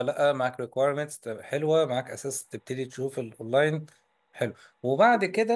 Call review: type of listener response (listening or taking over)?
listening